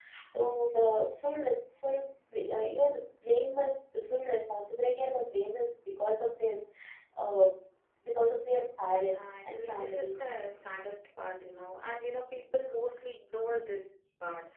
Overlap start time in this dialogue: 9.0 s

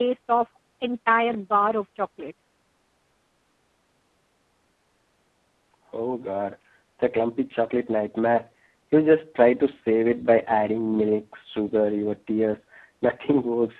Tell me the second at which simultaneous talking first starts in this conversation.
none

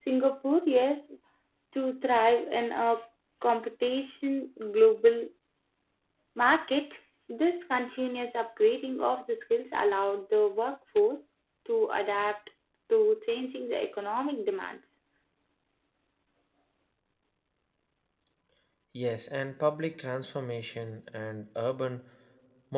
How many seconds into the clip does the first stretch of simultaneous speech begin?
none

